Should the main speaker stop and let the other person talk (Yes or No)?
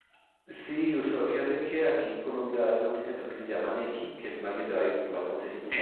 Yes